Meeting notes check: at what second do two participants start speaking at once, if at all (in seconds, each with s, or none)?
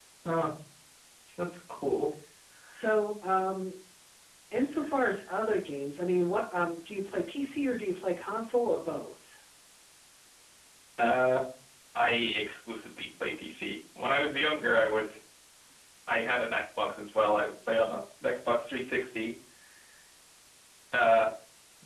none